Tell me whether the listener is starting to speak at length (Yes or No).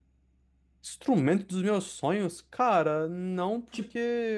No